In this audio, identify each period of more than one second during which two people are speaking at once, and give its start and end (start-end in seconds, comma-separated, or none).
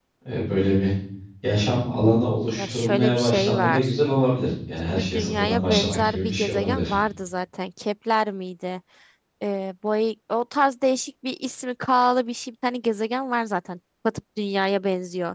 2.6-3.9, 4.8-6.8